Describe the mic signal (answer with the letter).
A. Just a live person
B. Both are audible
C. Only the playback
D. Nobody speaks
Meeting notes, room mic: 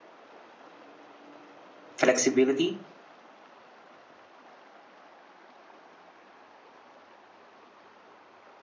A